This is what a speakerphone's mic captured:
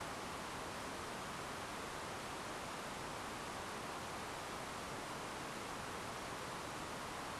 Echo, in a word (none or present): none